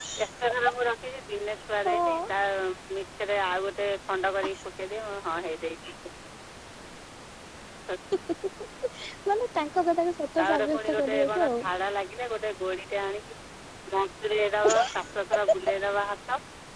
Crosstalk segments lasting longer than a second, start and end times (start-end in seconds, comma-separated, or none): 10.4-11.6